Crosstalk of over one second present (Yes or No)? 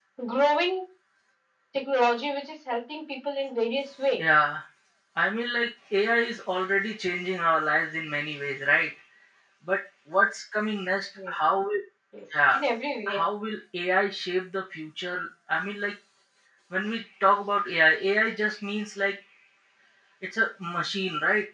No